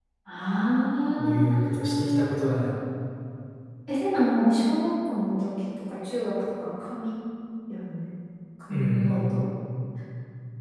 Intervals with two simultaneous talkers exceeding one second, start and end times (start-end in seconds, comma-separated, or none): 1.2-2.7